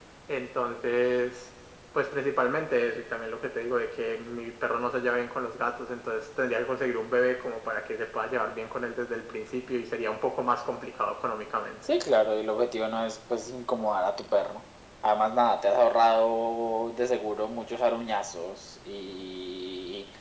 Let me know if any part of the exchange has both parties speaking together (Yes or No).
No